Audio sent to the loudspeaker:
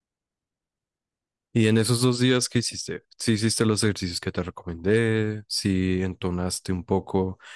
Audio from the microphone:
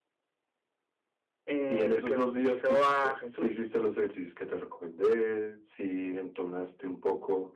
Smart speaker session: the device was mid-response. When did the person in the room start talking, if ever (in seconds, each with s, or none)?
1.4 s